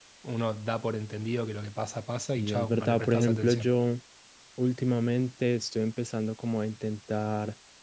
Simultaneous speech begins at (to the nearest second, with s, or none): 2 s